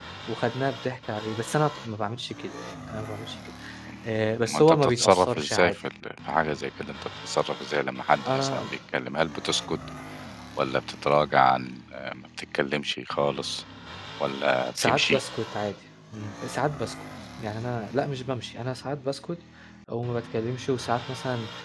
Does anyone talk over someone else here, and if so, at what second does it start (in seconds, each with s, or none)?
4.4 s